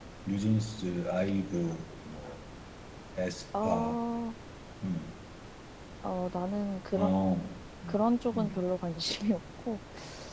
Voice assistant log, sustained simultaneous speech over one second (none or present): none